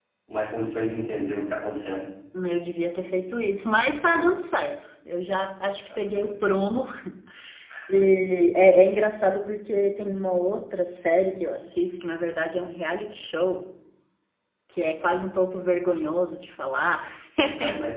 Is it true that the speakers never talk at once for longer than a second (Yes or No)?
Yes